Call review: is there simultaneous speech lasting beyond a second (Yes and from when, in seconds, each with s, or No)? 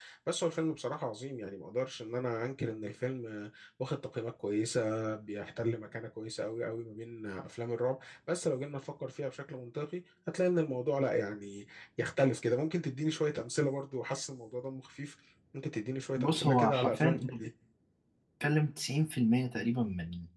Yes, from 16.2 s